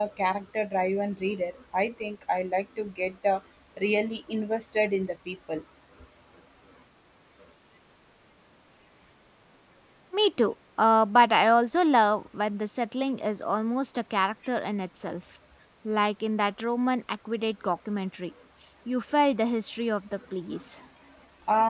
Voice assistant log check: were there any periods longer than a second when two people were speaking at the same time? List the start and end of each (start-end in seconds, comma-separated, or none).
none